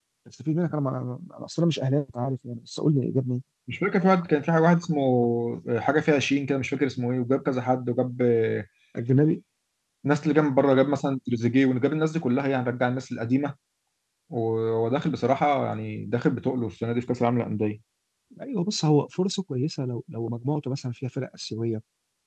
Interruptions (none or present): none